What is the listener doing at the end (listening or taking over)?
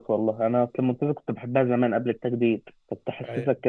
listening